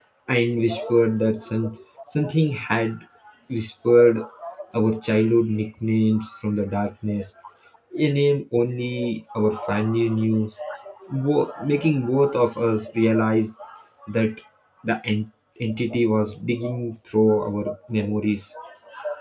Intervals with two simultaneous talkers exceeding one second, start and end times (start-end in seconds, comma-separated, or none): none